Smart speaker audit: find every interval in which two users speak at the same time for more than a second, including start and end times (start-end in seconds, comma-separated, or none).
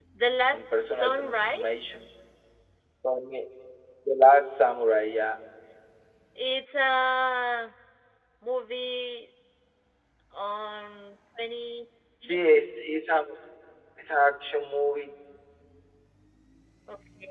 0.5-1.8